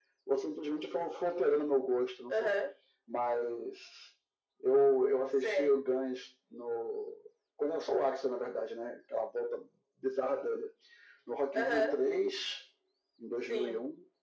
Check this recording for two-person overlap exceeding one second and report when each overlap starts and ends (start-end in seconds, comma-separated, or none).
none